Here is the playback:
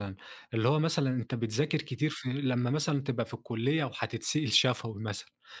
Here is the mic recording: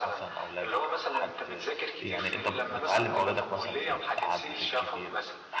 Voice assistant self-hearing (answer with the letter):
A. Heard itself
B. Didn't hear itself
A